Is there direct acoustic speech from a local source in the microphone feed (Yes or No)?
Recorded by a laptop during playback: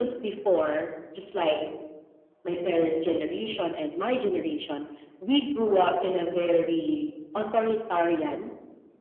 No